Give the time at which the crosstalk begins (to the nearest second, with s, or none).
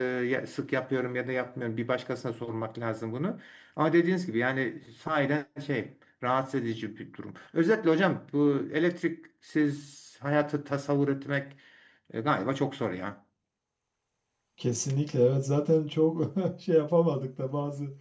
none